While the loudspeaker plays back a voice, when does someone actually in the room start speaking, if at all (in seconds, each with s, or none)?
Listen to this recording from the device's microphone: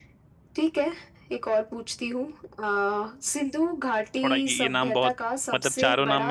4.2 s